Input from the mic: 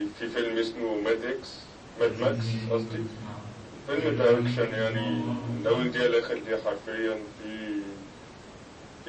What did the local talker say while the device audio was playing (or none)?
لذيذ يعني ممكن أسمعه حلو يعني ممكن نسمعه النهاردة مثلا